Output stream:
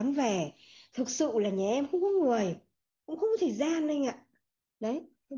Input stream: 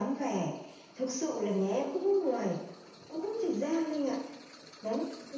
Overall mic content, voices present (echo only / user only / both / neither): echo only